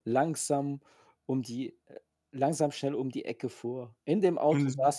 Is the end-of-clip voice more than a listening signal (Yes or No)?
No